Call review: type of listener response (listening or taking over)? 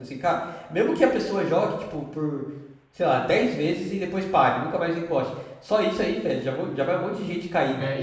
taking over